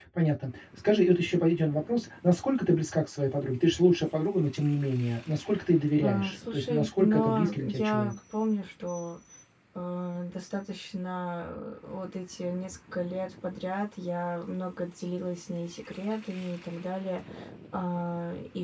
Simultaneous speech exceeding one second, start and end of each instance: 6.0-8.2

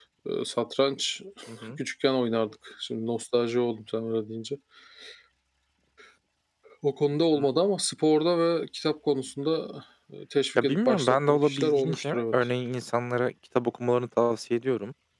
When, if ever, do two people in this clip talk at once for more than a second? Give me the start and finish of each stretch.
10.6-12.3

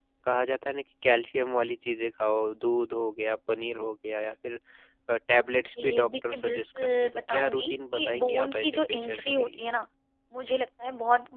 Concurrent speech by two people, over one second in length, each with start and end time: 5.8-9.6

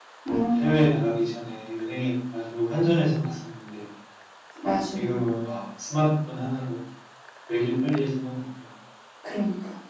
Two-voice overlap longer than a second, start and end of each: none

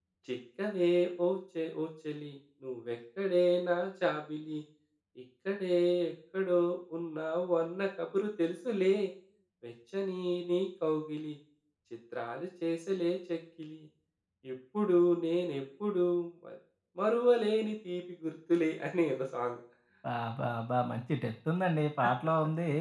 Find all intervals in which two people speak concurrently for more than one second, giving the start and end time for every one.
none

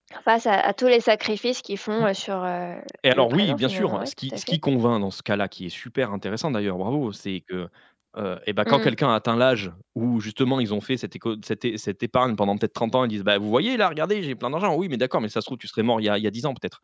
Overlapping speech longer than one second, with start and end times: 3.1-4.6

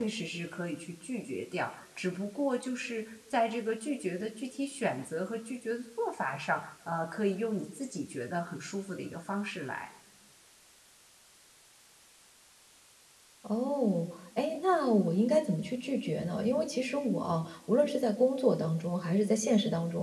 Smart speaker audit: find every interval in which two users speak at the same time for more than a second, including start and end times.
none

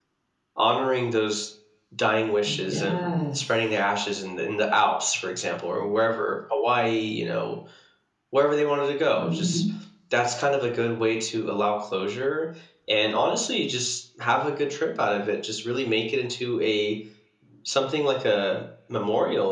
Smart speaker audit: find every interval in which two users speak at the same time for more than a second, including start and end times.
none

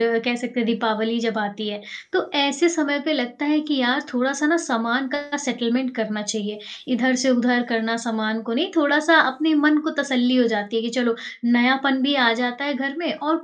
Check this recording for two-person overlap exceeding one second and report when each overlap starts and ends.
none

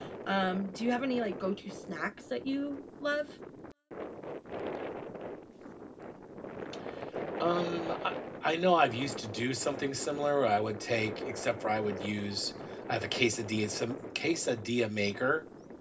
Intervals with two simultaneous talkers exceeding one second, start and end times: none

